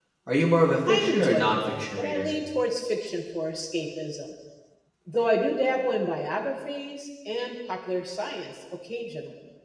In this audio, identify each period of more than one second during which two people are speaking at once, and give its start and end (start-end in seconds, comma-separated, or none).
0.9-2.3